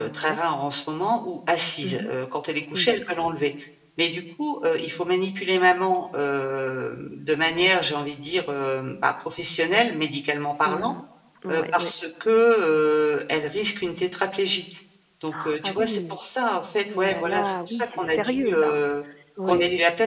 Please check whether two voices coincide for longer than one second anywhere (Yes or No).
Yes